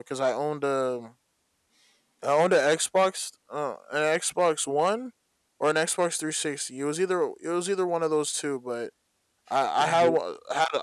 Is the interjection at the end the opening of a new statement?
No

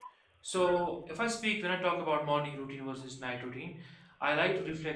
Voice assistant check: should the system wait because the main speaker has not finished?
Yes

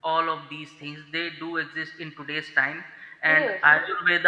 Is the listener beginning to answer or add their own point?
No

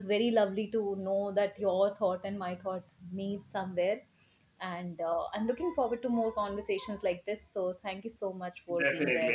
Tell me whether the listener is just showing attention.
No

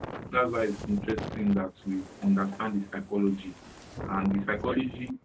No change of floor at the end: Yes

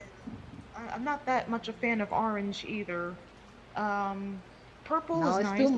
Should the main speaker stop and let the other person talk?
Yes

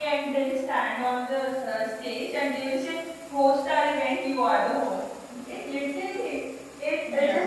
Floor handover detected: No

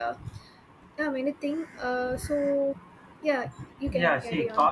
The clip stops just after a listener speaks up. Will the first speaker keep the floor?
No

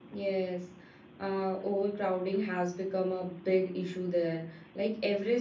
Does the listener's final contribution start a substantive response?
No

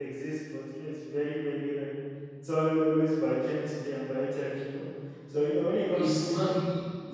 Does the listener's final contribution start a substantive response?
Yes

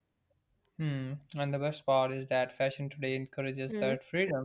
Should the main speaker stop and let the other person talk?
No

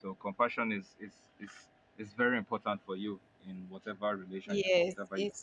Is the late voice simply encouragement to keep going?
No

